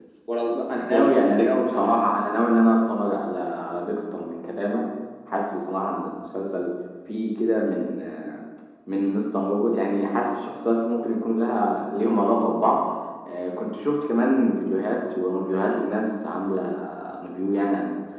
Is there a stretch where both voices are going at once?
Yes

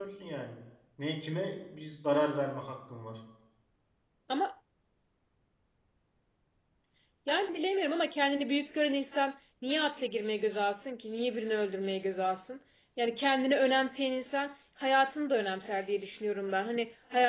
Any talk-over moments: No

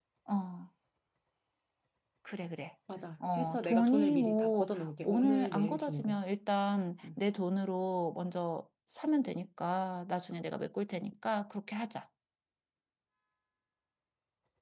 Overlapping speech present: Yes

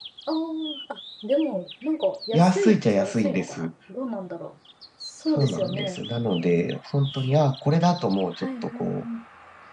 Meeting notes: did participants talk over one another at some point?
Yes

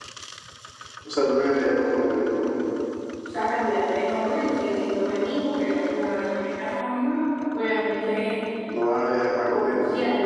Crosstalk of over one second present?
No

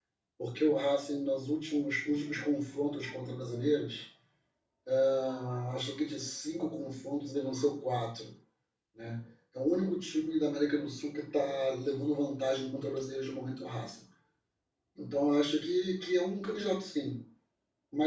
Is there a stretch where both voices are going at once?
No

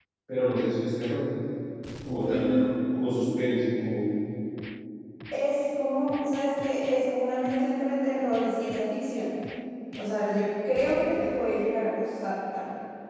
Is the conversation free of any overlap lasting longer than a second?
Yes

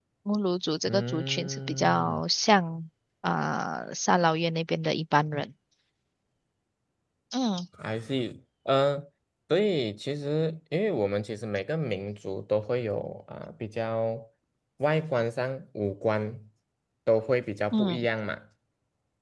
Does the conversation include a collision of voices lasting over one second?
Yes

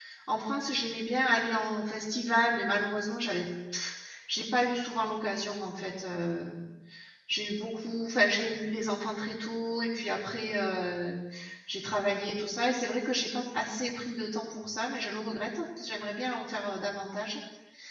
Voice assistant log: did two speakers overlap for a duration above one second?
No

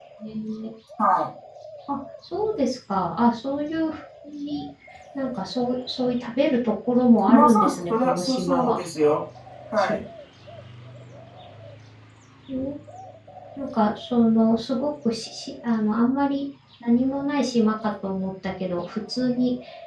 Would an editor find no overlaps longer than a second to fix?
No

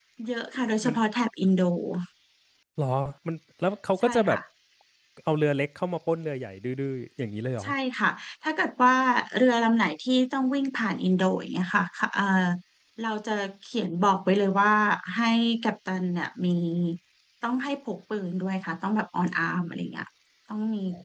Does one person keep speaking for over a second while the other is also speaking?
No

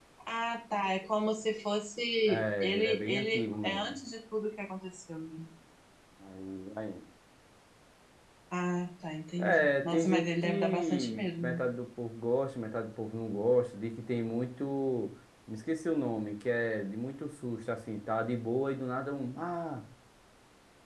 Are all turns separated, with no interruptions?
No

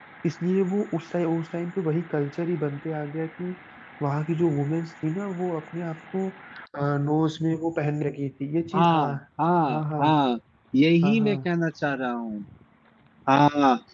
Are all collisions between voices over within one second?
Yes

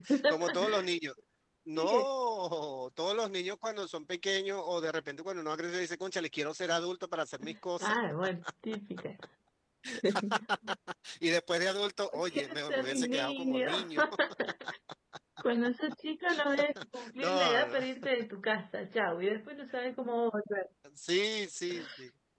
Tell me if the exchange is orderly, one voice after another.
No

